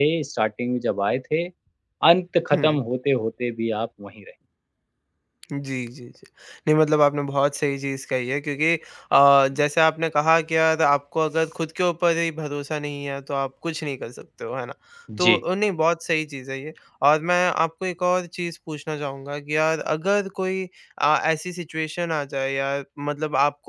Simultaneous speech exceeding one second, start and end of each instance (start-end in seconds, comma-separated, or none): none